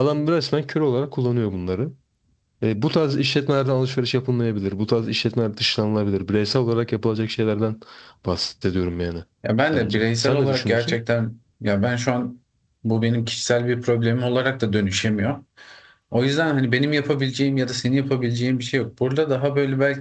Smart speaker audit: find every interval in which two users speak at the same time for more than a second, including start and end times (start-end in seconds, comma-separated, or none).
9.7-11.0